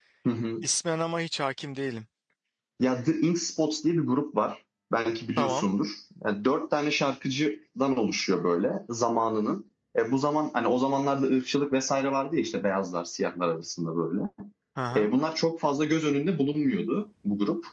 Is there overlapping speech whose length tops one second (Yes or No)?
No